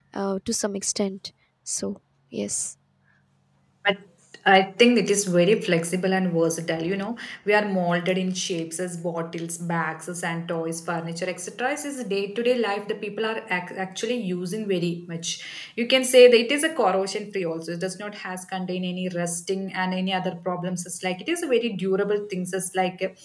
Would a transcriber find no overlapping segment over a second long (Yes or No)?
Yes